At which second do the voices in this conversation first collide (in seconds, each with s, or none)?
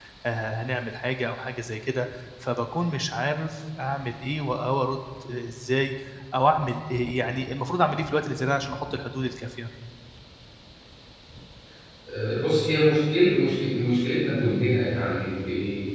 none